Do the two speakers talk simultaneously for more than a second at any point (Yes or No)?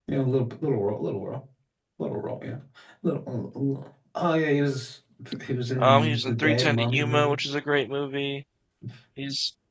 Yes